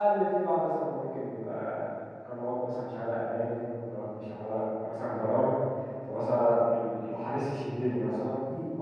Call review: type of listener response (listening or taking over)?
taking over